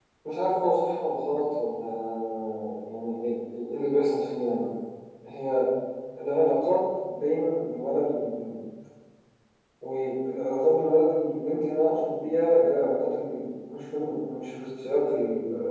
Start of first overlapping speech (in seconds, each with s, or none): none